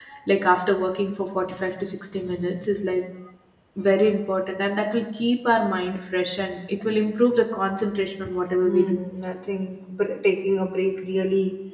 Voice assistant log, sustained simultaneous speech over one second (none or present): none